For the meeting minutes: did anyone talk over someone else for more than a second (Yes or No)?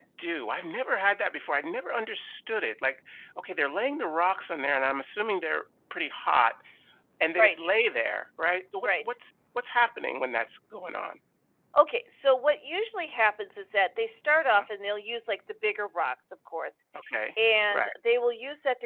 No